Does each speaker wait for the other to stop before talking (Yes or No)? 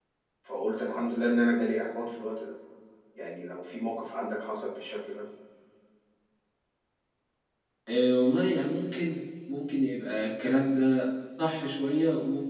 Yes